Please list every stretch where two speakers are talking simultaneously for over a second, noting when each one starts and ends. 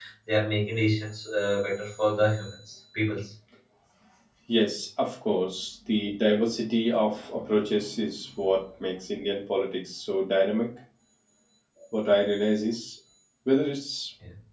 none

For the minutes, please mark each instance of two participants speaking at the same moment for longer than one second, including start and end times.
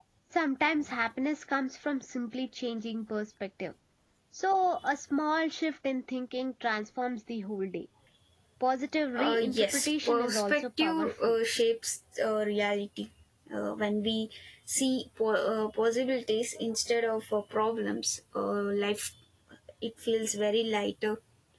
9.2-11.3

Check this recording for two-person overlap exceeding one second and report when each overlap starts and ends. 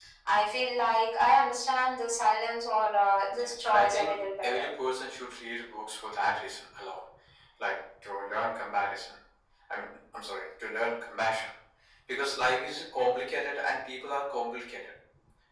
3.3-4.6

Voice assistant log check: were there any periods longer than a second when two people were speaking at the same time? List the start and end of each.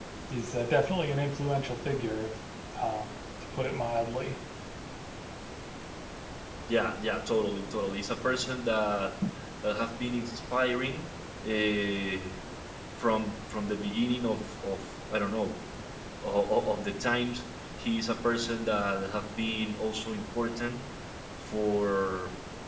none

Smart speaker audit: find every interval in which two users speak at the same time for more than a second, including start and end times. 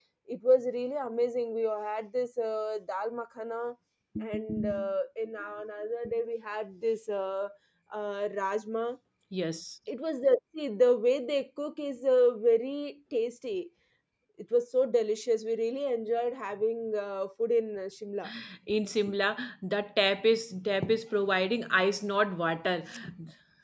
none

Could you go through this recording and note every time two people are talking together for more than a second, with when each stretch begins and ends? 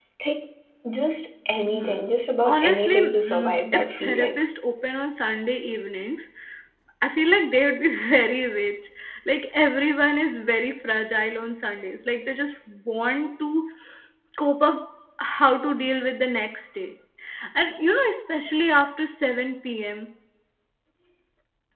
2.4-4.3

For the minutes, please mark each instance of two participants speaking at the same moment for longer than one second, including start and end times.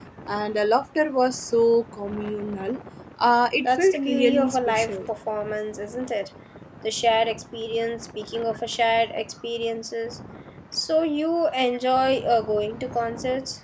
3.6-5.0

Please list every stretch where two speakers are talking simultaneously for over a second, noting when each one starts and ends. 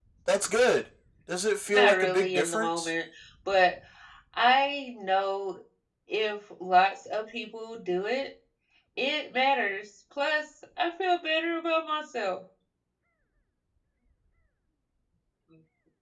1.7-2.9

